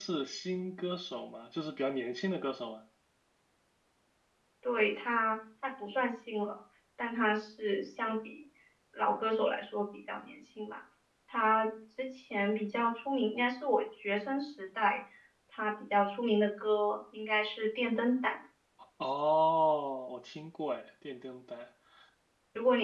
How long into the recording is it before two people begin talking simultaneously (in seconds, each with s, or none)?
none